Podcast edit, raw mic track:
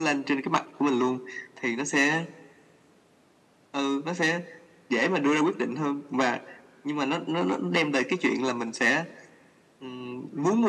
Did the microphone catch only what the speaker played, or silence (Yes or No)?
Yes